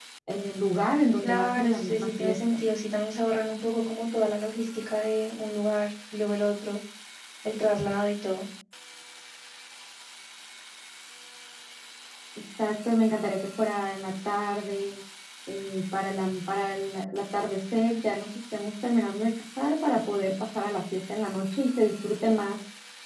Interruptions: present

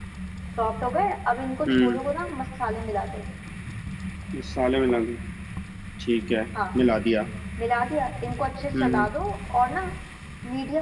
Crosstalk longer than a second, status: none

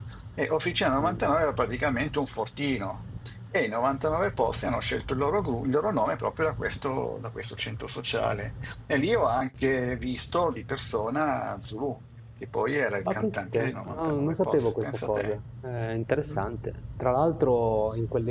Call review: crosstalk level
present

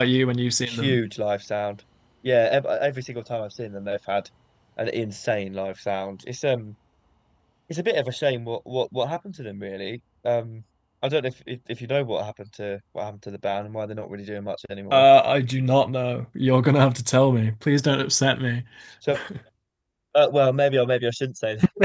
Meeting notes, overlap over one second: none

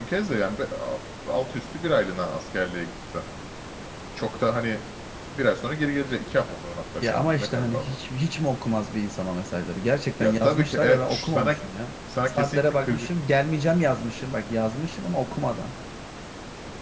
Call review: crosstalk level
present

